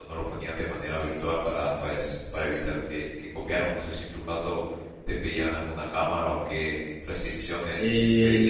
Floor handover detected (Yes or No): Yes